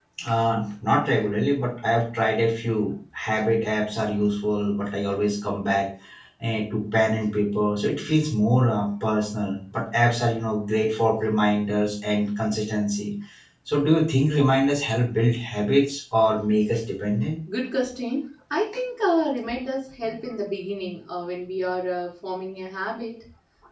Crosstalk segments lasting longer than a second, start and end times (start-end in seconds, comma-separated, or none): none